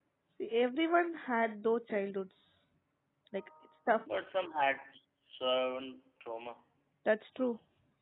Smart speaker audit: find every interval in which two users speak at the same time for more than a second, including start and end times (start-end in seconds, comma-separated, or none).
none